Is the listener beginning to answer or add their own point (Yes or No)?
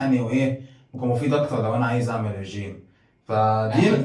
Yes